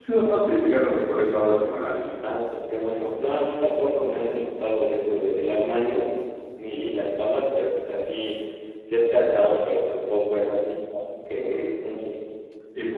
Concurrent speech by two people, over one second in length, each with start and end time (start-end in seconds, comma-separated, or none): none